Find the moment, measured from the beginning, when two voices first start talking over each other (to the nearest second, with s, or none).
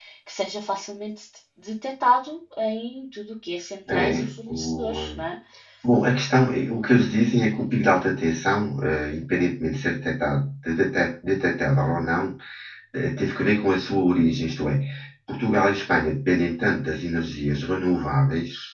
4 s